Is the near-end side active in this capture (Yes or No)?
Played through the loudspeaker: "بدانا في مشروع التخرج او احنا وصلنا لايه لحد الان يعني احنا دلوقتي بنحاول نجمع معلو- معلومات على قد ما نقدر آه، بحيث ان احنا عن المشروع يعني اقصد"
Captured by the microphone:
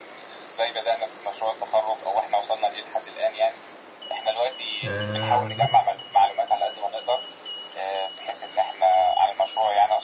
Yes